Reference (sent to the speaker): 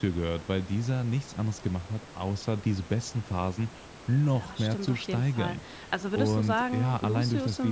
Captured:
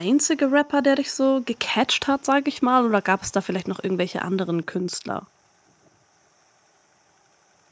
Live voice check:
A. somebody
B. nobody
A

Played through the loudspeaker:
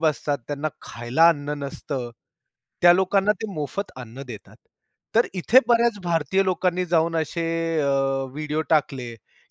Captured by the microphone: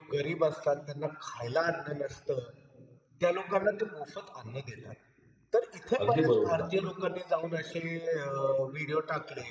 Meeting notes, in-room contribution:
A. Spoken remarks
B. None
A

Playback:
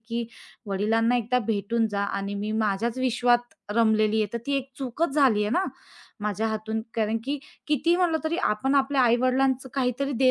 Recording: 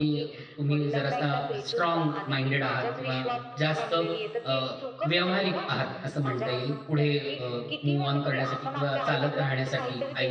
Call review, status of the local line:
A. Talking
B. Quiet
A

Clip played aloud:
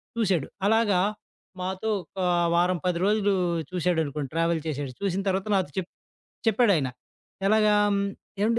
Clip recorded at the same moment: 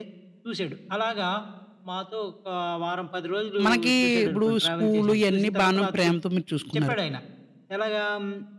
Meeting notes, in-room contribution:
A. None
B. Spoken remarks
B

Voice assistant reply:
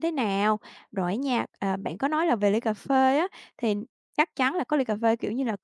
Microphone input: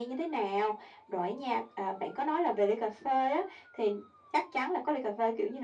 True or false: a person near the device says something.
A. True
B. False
B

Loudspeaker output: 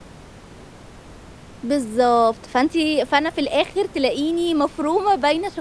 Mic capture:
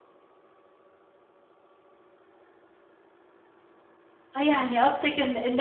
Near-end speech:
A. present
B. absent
A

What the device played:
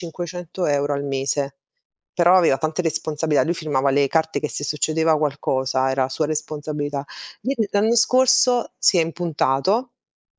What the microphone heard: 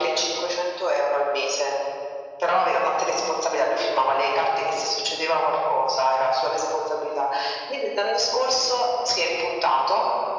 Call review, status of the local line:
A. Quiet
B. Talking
A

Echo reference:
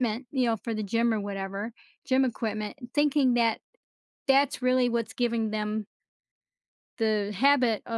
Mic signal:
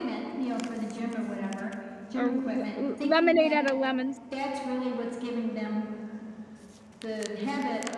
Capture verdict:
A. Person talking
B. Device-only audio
A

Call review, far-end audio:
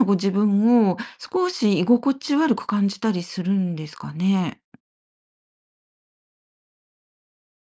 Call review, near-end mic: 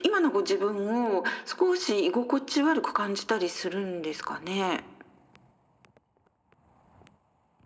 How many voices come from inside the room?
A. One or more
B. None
B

